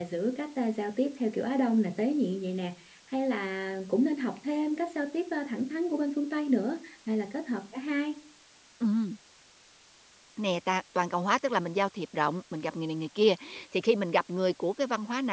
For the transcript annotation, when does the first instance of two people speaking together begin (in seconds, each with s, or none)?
none